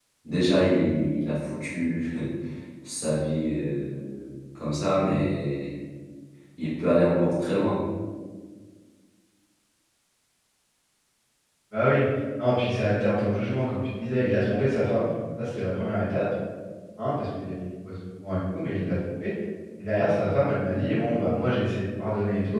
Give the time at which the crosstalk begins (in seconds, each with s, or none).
none